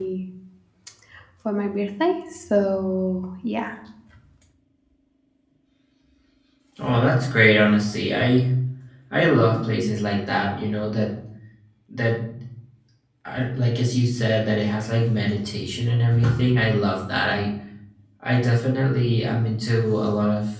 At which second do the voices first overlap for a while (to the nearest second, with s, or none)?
none